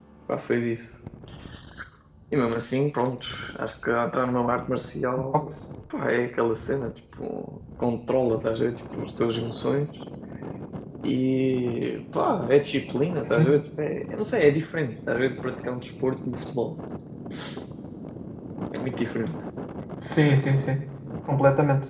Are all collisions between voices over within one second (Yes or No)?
Yes